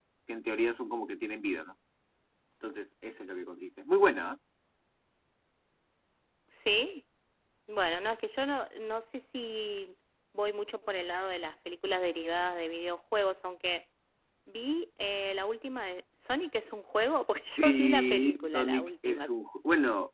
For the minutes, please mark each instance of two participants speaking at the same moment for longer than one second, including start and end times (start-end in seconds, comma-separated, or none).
17.6-19.3